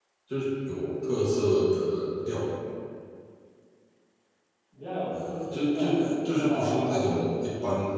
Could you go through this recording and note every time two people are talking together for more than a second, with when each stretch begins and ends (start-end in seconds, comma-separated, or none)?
5.2-7.0